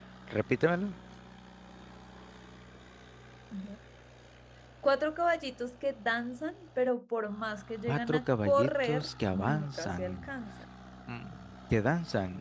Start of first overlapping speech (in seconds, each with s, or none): 7.9 s